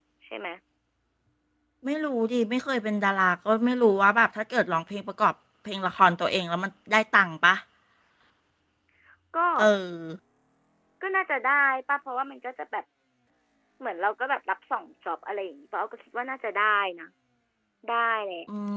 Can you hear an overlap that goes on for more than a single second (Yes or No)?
No